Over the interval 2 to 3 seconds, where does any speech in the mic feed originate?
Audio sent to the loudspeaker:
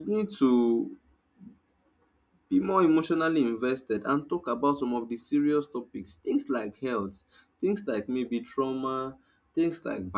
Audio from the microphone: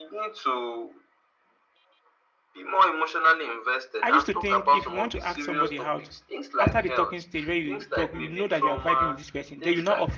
echo only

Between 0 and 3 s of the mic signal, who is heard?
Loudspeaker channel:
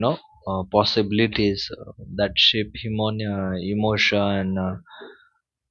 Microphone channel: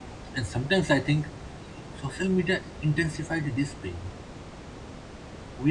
user only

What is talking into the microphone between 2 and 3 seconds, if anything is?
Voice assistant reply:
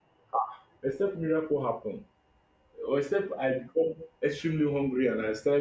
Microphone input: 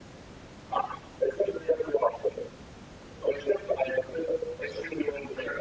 echo only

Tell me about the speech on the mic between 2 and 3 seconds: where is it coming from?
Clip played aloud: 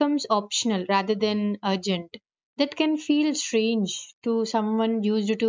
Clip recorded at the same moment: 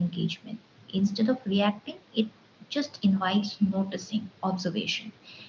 user only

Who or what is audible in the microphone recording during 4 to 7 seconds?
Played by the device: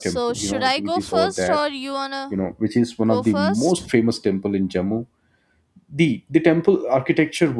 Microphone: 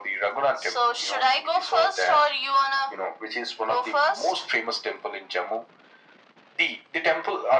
echo only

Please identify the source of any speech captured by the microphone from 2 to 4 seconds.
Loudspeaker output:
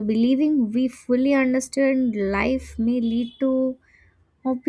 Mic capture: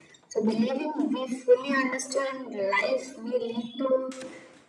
echo only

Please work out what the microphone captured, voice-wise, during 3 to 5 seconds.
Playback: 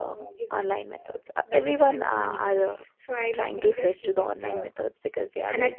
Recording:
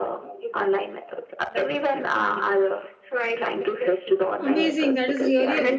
both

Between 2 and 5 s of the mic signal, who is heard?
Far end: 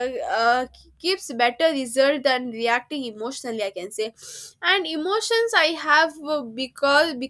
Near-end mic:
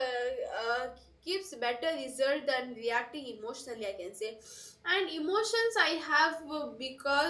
echo only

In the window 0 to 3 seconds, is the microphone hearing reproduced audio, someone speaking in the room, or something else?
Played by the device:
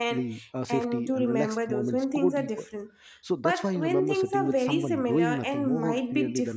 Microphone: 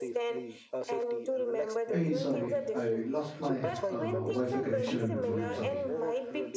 both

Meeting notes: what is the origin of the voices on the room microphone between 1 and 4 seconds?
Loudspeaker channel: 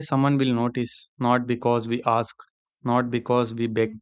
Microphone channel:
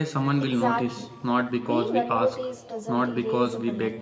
both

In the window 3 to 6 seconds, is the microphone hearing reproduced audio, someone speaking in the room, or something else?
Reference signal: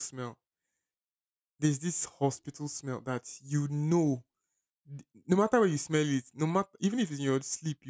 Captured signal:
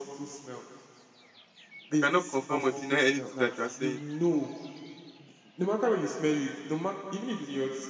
both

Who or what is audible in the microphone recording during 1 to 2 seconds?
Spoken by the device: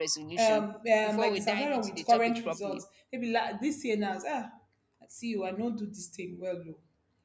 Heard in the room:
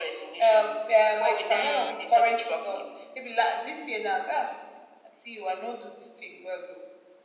both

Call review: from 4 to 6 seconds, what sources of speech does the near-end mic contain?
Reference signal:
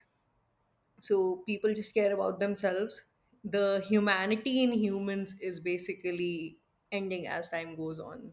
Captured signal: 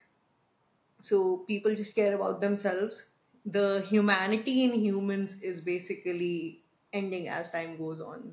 echo only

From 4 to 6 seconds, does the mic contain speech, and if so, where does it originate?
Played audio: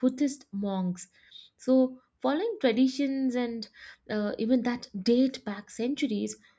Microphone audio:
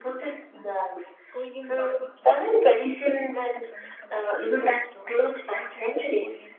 both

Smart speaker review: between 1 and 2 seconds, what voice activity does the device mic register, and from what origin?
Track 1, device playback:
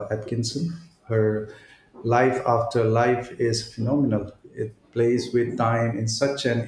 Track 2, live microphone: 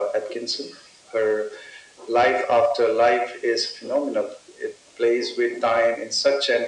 echo only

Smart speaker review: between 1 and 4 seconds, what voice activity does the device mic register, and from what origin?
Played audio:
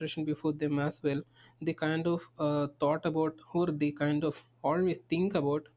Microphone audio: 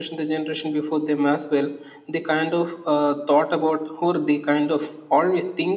echo only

